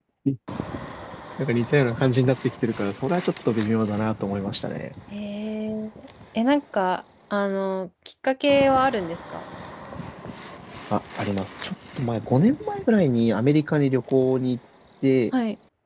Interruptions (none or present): none